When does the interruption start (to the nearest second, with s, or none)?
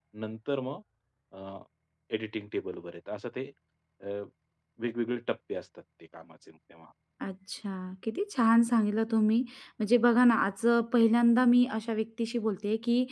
none